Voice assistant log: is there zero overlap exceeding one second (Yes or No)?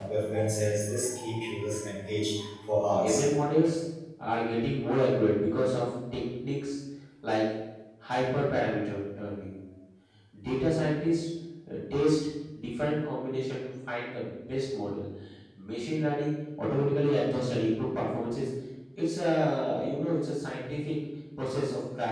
Yes